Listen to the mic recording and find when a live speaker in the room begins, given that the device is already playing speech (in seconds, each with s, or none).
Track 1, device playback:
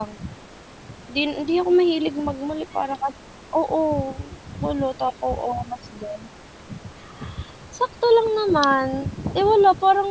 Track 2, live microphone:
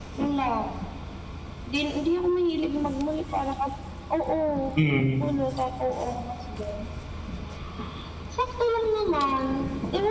4.7 s